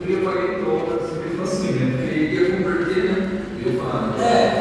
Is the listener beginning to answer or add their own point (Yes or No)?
Yes